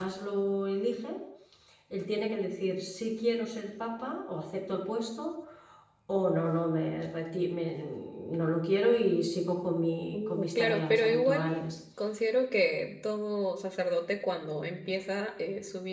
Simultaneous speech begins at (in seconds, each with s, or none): 10.1 s